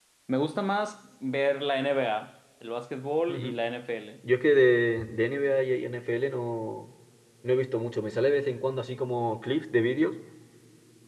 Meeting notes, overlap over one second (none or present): none